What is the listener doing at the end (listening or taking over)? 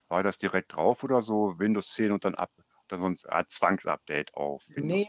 taking over